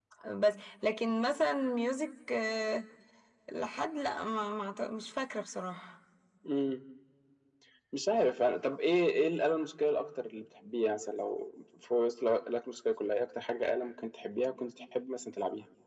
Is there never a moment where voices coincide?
Yes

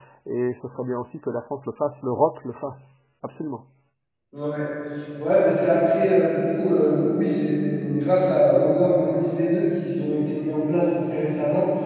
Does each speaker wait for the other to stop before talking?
Yes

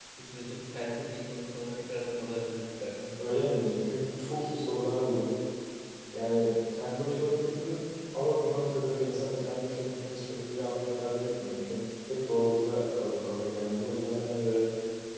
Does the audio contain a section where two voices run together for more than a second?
No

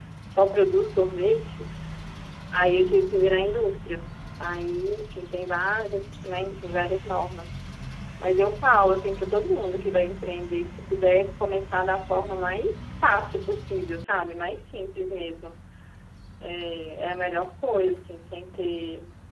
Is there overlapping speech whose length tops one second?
No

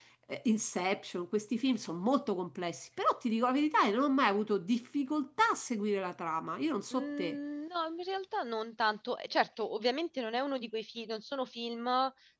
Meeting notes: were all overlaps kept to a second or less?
Yes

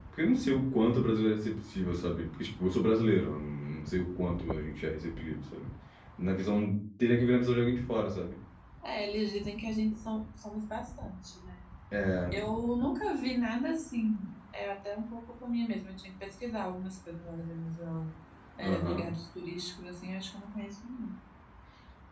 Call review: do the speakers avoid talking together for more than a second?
Yes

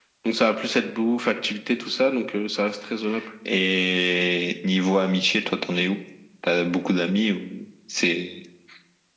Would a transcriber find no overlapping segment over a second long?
Yes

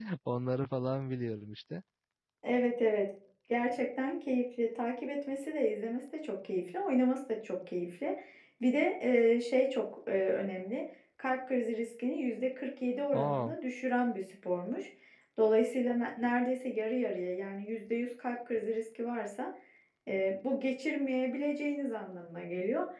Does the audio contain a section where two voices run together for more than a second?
No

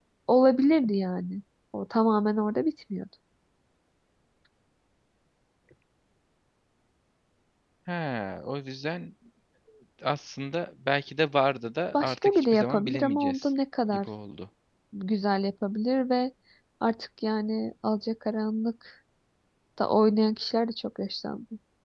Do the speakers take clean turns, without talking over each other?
No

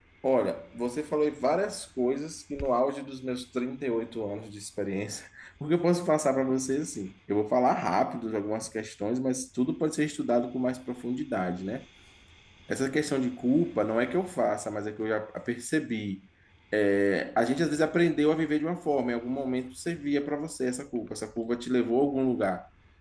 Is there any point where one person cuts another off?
No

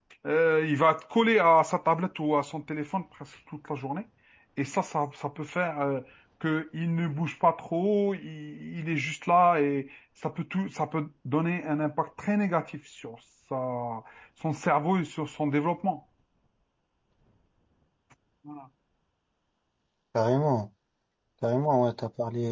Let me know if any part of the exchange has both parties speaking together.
No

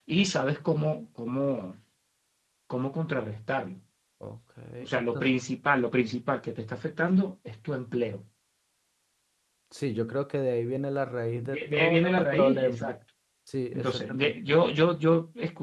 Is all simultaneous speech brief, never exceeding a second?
No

